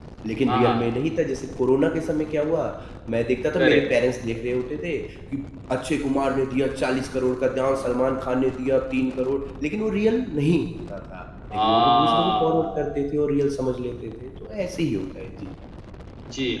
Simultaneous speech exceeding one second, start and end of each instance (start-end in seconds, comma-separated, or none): 11.5-13.0